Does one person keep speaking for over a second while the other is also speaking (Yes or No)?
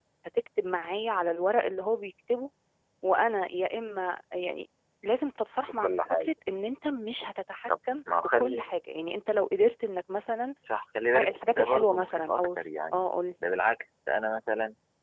Yes